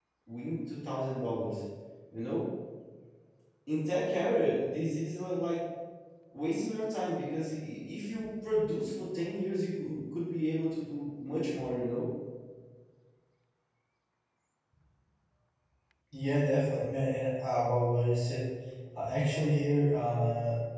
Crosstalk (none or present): none